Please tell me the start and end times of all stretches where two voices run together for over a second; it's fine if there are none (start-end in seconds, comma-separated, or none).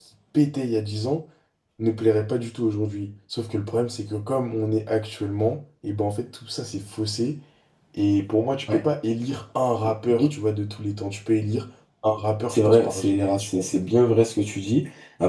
12.5-13.8